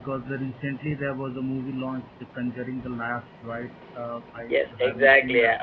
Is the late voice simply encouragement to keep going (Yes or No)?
No